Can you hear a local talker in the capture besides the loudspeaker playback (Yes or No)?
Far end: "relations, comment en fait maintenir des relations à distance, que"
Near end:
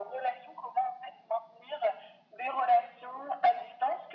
No